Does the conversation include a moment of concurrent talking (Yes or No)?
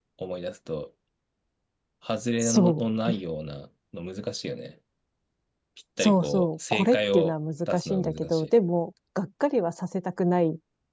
Yes